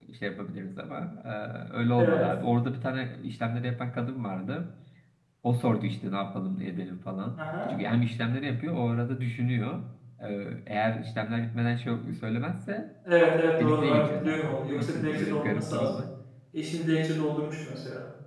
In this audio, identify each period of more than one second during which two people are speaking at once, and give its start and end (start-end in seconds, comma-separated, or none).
13.6-16.0